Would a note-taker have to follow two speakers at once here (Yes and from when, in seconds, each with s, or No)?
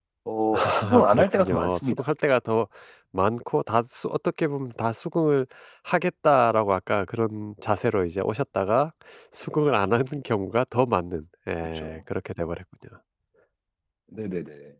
Yes, from 0.5 s